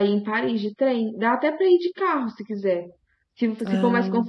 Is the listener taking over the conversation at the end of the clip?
No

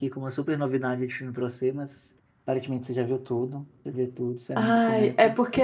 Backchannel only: No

